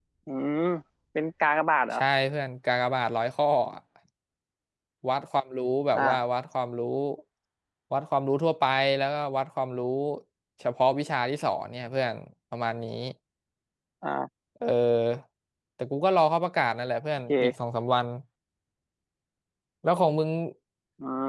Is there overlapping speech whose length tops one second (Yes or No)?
No